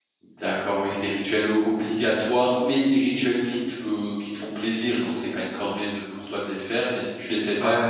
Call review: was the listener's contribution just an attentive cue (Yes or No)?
No